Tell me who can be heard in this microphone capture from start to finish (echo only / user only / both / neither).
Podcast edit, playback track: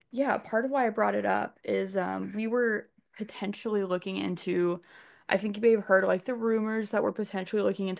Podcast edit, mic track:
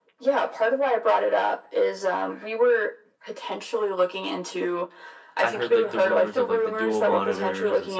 both